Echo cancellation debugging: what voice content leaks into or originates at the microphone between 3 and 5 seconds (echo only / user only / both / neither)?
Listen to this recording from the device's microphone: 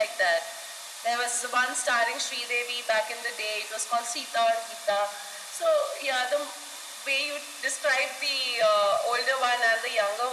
echo only